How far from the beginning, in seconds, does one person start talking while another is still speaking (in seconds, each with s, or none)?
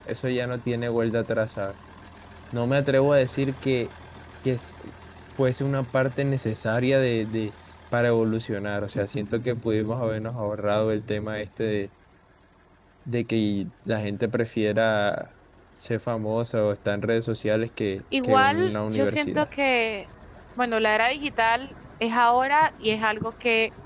18.1 s